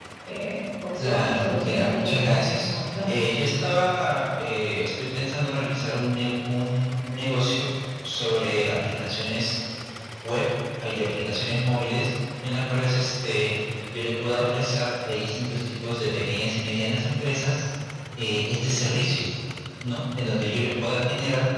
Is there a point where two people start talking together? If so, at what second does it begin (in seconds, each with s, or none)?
1.0 s